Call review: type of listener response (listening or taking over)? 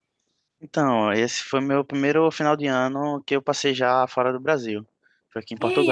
taking over